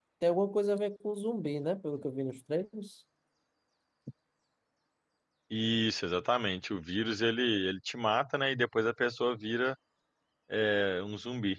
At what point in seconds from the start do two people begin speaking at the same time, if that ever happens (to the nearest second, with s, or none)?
none